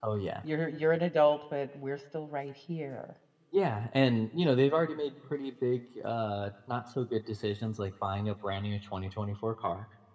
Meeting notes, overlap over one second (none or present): none